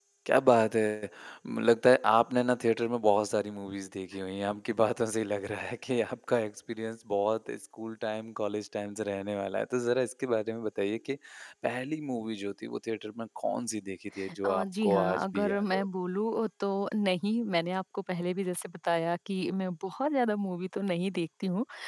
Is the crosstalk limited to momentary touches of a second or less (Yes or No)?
No